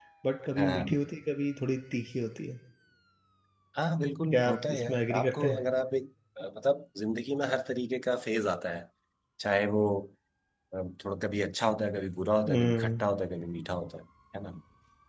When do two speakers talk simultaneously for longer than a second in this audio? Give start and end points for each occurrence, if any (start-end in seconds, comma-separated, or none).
4.3-5.6